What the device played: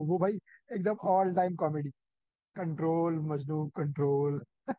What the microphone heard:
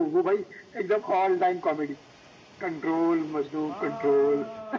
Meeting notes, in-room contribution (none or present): present